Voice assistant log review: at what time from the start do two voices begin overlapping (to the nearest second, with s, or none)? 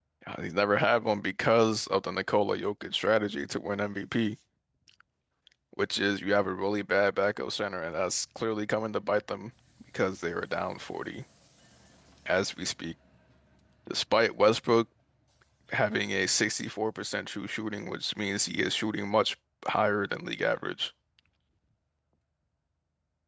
none